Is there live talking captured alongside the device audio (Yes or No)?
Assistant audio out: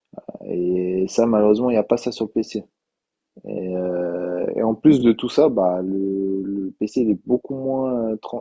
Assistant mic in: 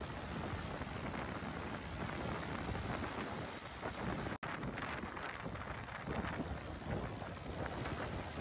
No